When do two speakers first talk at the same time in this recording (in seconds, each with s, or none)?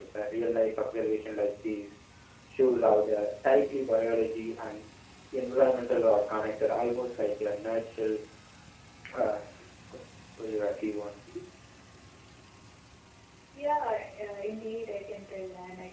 none